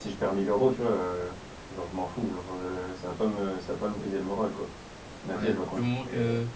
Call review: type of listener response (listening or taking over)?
taking over